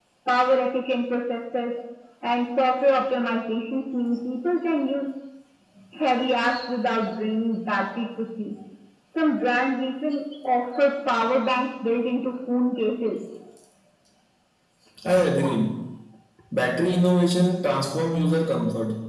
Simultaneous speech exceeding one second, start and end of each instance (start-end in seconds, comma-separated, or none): none